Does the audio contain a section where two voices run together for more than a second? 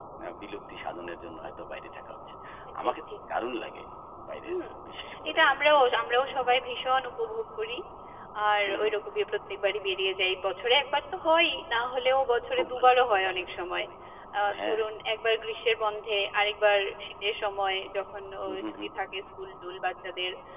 Yes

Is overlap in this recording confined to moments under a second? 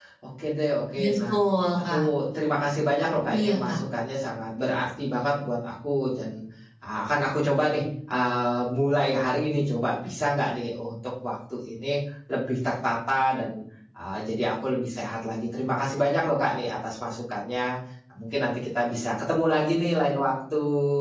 Yes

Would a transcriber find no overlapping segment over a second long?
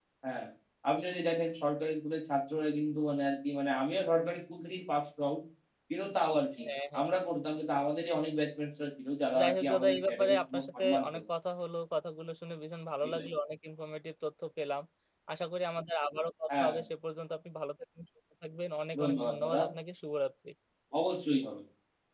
No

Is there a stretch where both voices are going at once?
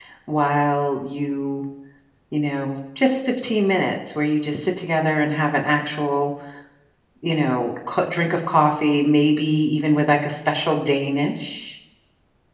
No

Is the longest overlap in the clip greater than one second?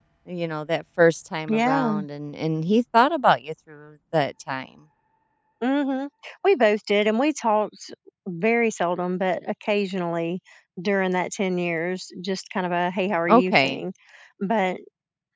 No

